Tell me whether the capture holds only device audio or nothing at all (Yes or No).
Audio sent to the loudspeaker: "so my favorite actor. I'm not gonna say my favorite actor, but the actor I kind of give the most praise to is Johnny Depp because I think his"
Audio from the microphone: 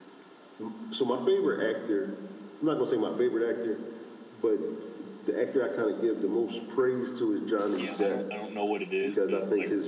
No